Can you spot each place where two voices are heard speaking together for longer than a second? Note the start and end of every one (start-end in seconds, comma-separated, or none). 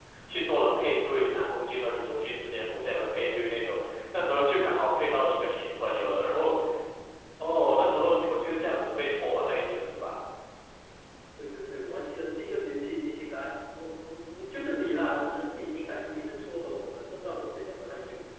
none